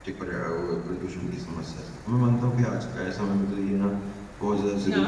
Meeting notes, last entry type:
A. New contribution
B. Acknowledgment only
B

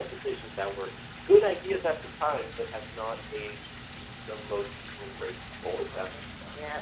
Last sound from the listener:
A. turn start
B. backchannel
A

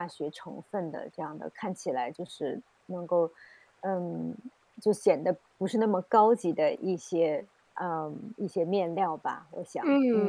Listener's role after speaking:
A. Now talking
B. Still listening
A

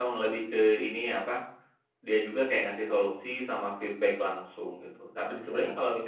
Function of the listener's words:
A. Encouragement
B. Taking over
A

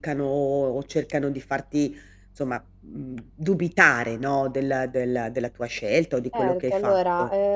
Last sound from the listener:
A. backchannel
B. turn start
B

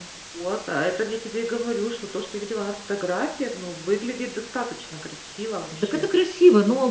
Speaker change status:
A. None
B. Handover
B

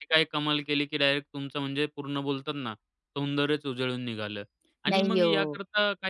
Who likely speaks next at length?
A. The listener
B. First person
B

